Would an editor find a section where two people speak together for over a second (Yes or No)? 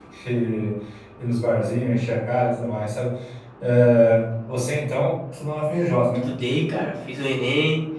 No